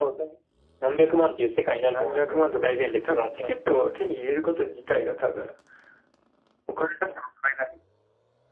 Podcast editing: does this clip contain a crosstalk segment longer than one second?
Yes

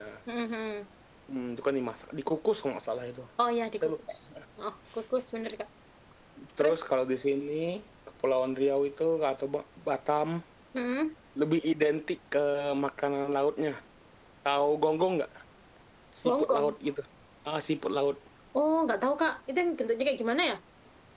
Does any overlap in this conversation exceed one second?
No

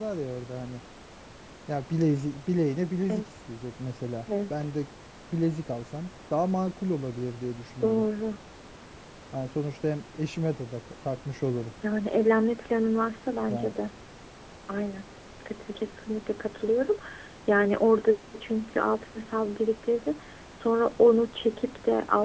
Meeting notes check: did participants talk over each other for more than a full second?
No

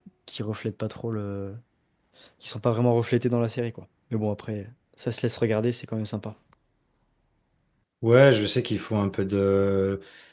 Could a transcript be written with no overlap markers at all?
Yes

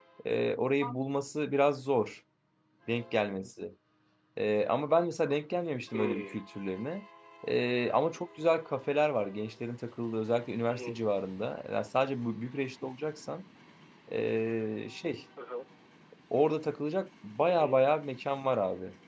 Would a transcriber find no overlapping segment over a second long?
Yes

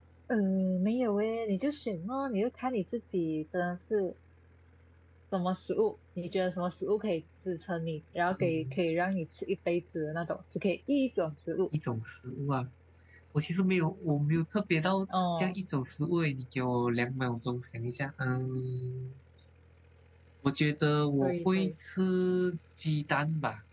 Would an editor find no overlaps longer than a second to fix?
Yes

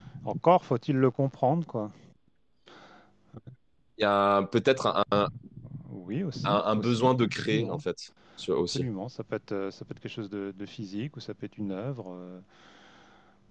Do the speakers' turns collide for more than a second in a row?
Yes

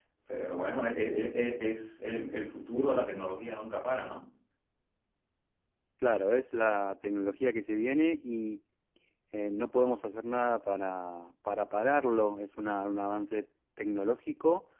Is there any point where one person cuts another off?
No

